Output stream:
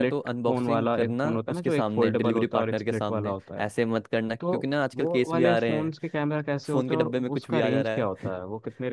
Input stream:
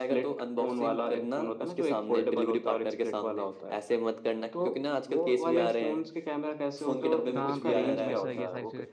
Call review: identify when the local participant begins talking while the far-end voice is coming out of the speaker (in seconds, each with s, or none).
7.3 s